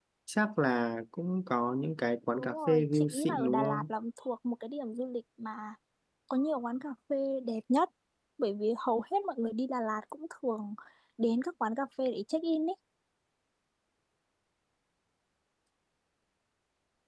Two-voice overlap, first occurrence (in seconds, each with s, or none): 2.3 s